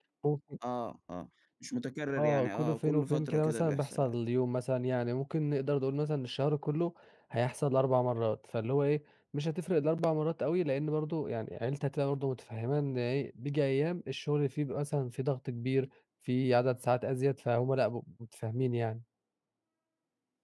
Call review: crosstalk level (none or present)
present